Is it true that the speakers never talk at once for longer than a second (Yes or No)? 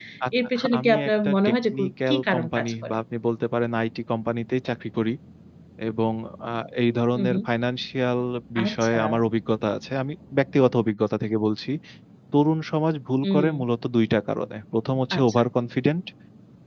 No